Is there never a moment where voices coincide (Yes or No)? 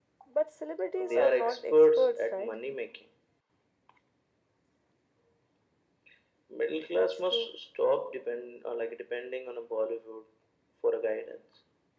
No